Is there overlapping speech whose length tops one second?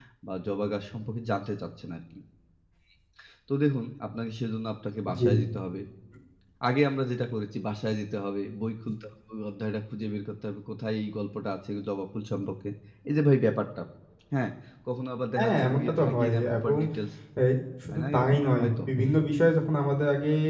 Yes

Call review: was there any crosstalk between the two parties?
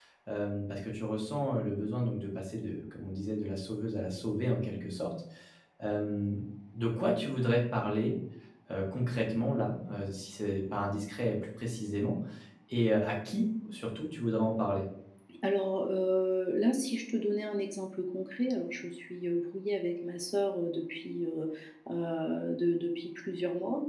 No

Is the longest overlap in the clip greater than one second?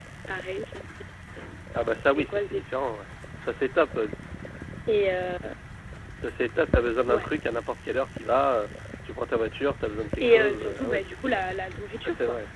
Yes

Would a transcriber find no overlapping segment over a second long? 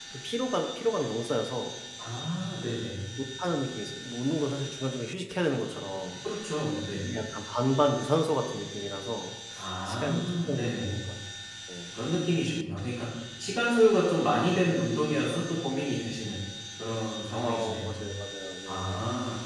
No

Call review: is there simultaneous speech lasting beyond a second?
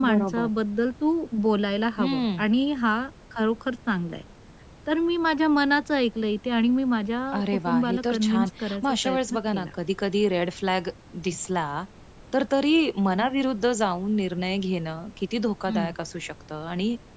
Yes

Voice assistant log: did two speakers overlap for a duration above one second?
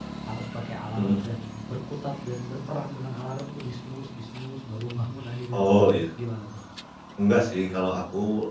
No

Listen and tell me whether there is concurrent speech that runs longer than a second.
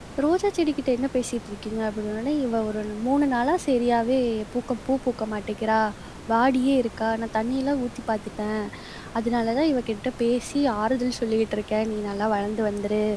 No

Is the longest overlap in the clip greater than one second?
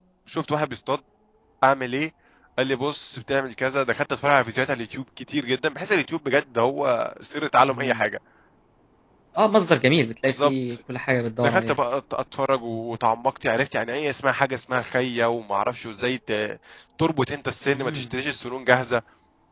No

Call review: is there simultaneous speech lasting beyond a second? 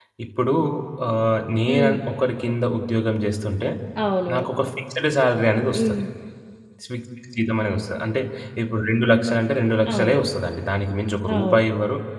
No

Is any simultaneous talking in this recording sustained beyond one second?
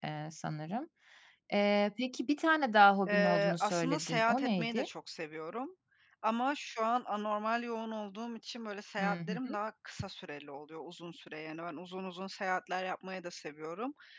Yes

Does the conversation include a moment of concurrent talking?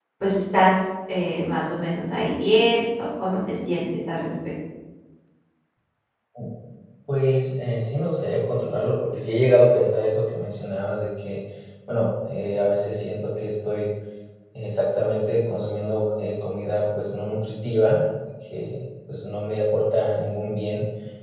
No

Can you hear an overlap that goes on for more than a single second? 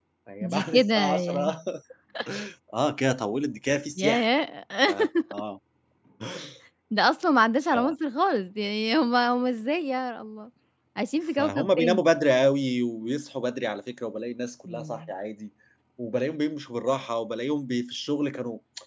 Yes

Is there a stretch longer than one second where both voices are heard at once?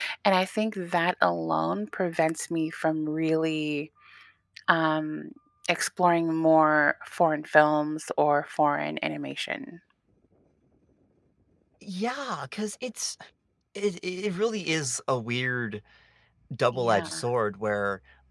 No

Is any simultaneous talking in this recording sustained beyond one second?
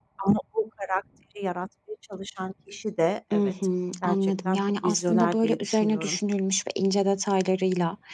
Yes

